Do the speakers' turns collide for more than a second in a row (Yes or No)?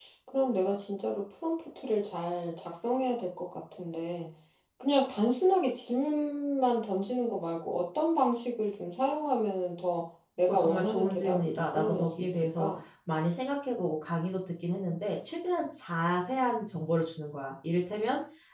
Yes